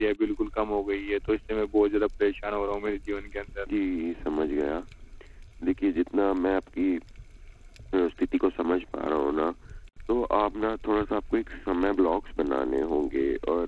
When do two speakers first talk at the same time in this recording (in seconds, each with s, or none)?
none